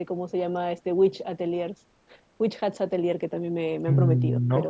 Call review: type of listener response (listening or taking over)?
taking over